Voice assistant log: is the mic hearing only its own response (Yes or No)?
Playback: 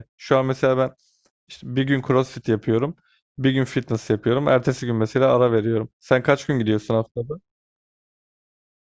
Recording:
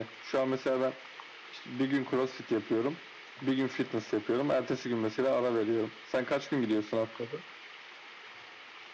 Yes